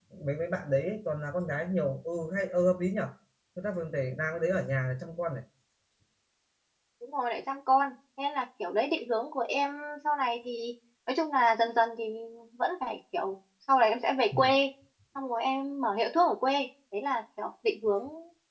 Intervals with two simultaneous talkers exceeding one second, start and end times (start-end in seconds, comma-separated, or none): none